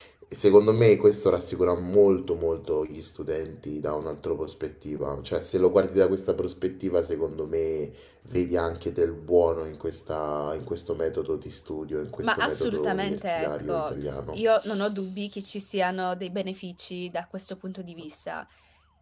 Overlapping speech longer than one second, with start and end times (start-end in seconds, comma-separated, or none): 12.2-13.9